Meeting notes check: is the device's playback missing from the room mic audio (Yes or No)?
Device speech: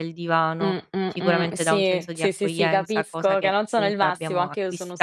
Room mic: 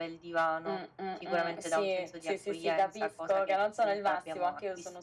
No